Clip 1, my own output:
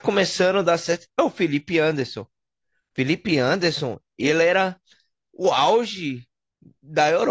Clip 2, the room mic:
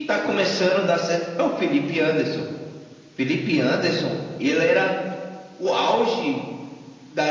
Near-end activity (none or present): none